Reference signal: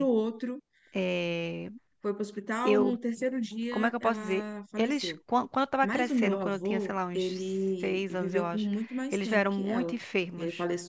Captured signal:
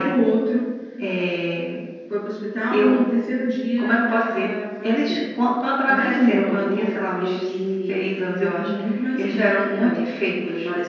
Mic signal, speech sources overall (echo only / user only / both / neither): echo only